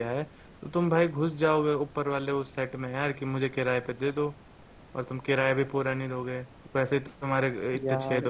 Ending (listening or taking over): taking over